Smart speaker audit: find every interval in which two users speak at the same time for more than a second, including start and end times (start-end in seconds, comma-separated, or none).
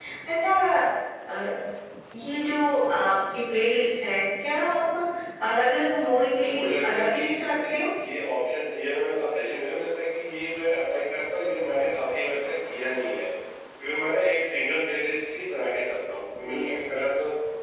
6.4-7.8